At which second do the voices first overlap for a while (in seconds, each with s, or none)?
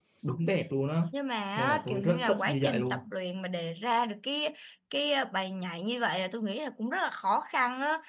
1.6 s